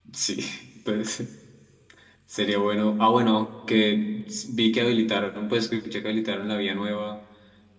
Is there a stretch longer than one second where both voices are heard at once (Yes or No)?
No